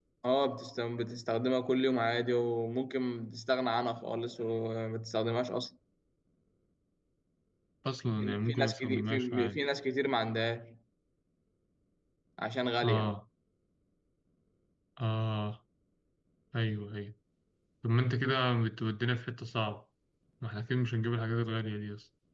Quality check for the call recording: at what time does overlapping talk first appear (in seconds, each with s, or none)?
8.2 s